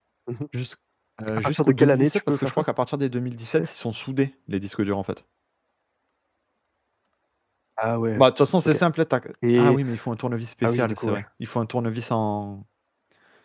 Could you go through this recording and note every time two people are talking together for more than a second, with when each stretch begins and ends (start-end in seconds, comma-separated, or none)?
1.3-2.6